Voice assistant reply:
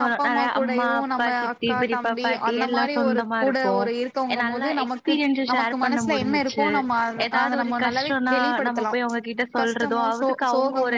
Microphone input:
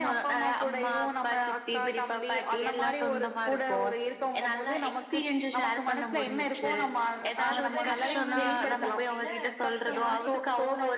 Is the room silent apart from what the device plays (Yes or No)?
No